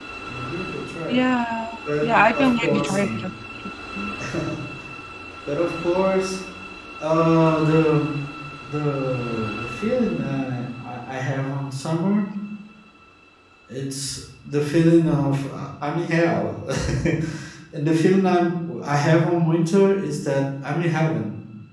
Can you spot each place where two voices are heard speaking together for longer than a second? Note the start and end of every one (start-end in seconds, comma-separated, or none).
2.0-3.2